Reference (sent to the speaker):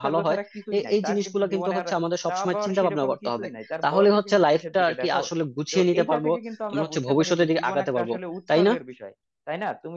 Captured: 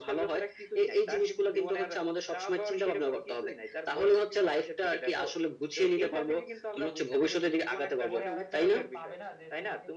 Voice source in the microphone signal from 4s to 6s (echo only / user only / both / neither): echo only